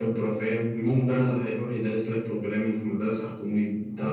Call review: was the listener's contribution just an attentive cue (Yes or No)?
No